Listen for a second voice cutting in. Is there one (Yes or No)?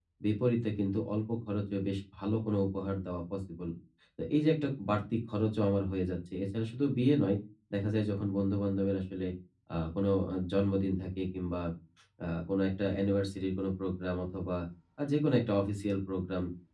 No